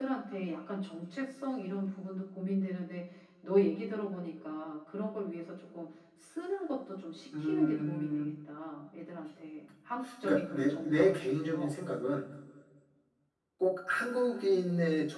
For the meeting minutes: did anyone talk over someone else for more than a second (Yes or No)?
Yes